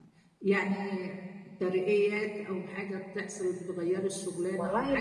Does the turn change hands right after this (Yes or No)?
No